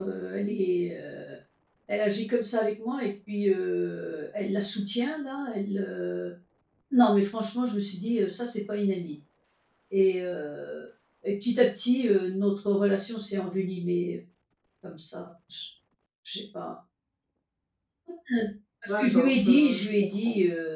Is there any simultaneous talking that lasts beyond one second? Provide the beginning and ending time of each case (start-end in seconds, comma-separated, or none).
18.9-20.1